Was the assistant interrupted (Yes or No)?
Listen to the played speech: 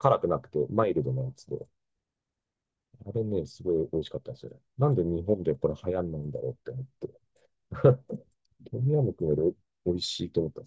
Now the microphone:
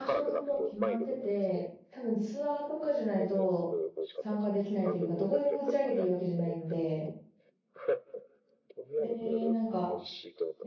Yes